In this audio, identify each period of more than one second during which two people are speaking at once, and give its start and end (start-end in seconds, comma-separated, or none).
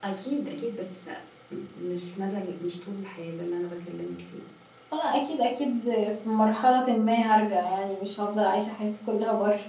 none